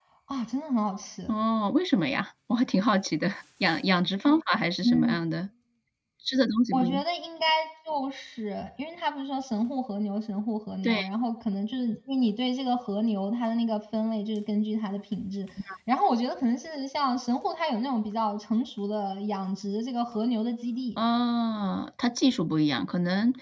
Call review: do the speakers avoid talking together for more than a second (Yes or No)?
Yes